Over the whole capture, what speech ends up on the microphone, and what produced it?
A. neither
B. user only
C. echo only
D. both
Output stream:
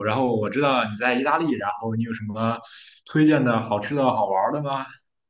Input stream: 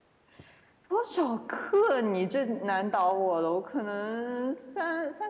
B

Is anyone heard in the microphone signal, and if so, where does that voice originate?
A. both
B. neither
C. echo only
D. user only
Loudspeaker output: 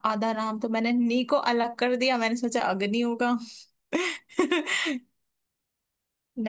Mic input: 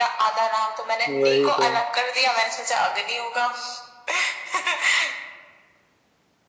A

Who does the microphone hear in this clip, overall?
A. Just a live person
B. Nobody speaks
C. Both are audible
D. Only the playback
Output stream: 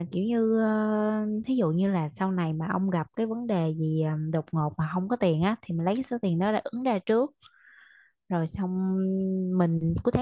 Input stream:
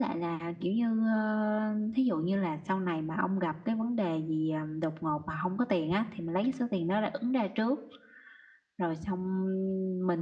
D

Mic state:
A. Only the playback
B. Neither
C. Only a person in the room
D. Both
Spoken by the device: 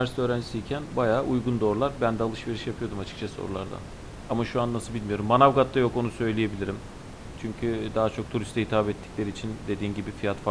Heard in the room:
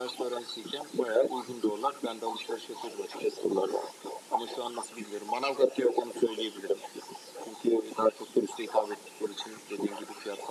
A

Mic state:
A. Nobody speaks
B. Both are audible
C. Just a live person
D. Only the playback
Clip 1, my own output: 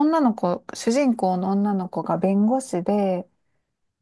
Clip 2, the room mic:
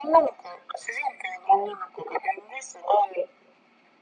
D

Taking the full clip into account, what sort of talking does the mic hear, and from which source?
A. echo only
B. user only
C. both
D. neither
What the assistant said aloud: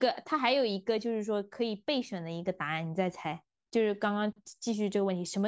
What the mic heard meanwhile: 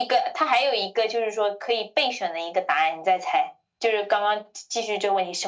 A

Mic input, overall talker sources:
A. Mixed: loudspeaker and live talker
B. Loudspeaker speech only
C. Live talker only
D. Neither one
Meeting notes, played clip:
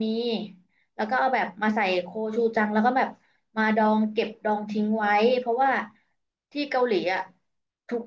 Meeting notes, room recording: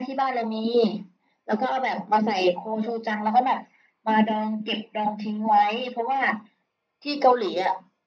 B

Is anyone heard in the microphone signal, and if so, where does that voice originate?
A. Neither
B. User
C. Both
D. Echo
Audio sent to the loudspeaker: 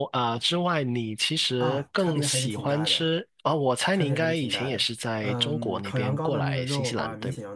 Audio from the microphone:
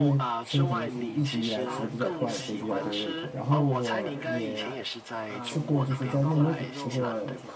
C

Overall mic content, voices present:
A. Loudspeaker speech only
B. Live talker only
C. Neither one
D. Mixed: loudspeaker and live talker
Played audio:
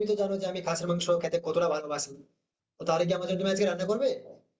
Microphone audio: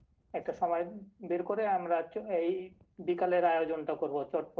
B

